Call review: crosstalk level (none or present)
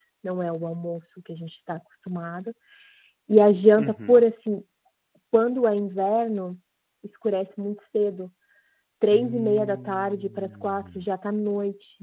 present